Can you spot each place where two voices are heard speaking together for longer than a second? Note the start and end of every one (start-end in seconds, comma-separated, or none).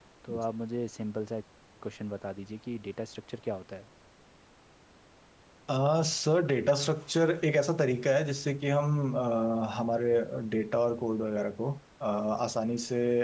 none